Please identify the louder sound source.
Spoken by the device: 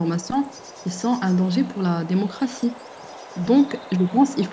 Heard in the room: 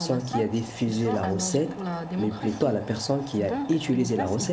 user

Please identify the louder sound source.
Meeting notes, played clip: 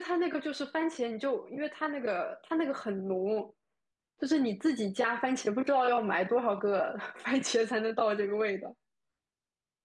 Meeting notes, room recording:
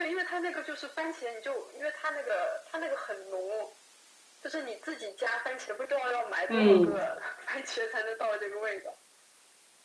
user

